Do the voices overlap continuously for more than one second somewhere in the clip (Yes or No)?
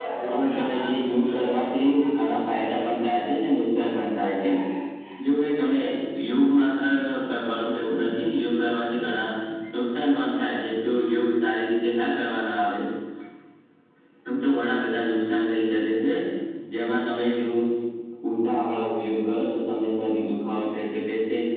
Yes